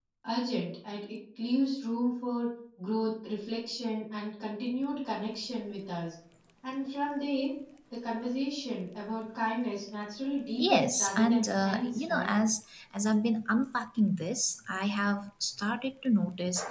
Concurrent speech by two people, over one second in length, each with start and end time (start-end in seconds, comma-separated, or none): 10.6-12.3